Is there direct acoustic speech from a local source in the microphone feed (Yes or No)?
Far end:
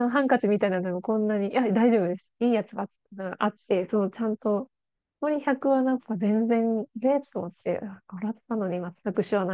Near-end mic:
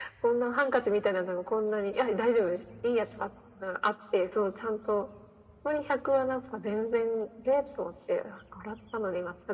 No